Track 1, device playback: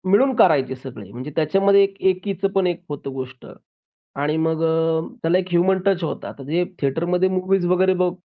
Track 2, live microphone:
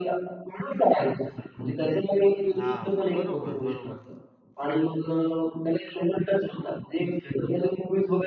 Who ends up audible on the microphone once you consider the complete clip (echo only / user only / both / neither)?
both